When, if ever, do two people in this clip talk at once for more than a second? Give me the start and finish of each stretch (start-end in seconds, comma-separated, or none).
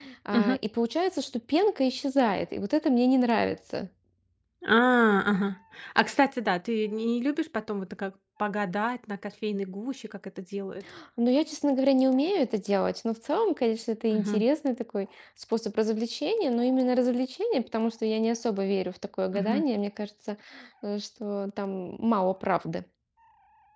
none